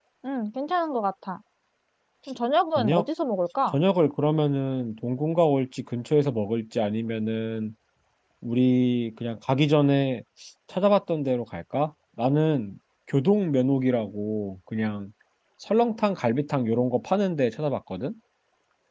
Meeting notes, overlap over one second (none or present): none